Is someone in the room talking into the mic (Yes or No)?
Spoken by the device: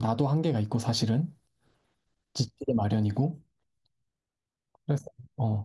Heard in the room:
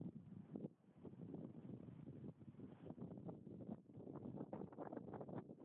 No